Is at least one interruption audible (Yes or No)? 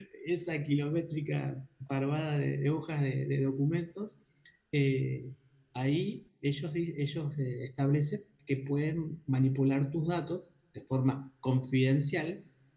No